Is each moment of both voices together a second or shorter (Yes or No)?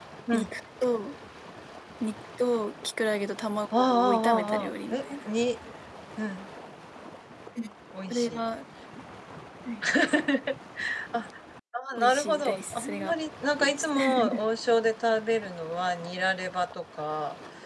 No